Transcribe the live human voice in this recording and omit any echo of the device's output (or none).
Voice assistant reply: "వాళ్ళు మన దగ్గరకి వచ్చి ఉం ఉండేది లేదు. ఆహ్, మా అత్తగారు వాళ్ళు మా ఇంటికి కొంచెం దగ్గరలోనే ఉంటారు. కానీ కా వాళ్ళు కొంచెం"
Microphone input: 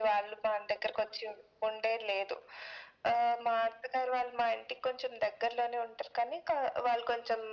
none